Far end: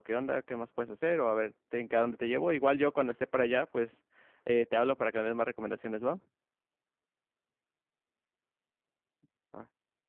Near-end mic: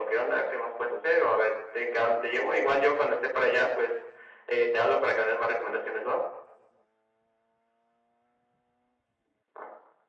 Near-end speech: none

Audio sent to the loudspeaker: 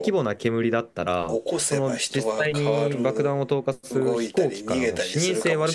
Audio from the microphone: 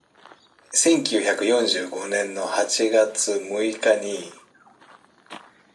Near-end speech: present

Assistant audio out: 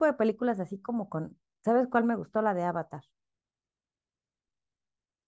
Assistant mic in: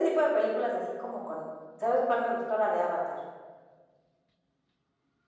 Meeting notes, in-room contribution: none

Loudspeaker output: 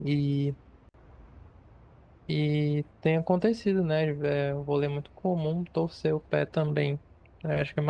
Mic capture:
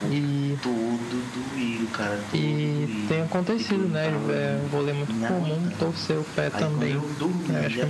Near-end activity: present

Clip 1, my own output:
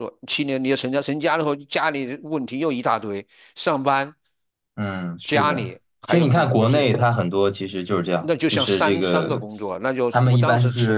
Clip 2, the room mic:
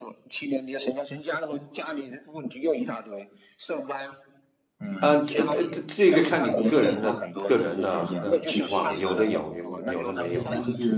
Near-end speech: present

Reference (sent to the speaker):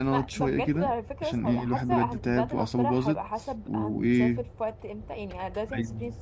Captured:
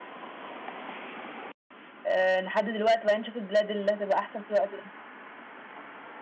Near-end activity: present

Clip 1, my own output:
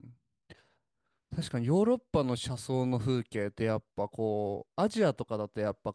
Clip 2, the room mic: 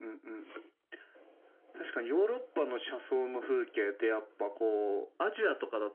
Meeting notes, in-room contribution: none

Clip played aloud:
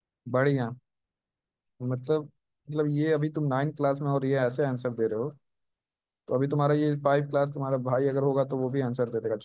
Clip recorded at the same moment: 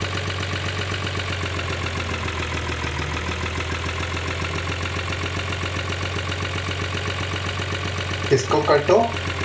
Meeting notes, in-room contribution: present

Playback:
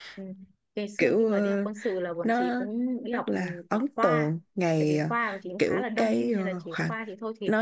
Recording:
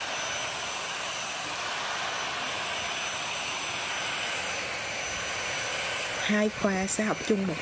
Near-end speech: present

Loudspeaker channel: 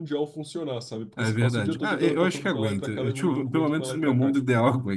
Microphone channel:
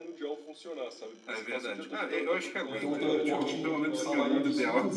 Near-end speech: present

